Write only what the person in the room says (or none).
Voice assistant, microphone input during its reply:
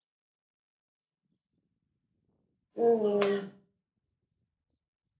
ம் ம்